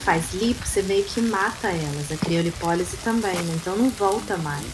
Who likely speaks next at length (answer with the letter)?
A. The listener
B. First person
A